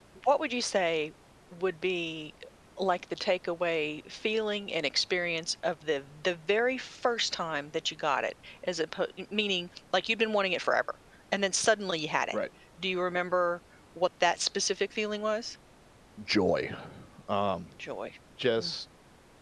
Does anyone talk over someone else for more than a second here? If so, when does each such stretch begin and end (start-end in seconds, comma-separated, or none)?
none